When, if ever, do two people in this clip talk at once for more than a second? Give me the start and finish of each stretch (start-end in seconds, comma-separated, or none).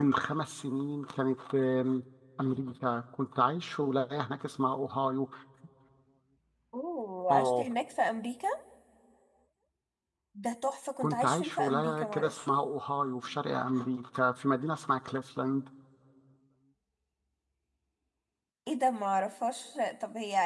11.0-12.4